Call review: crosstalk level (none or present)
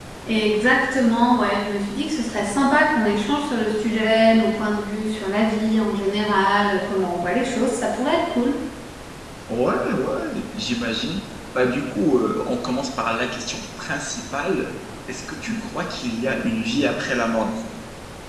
none